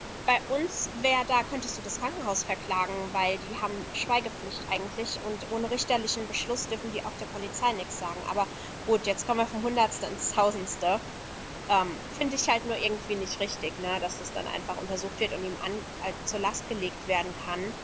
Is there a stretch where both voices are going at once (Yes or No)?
No